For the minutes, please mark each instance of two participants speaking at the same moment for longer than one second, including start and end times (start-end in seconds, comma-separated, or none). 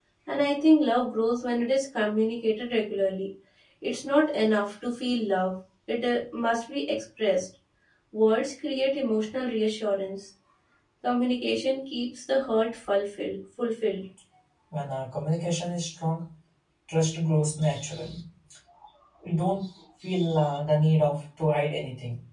none